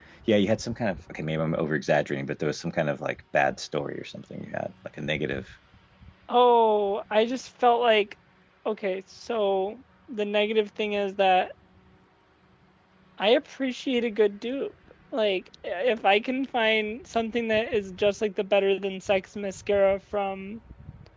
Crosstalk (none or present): none